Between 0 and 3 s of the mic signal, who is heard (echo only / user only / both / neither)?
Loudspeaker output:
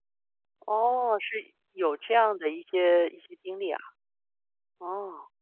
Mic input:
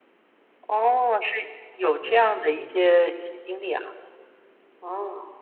both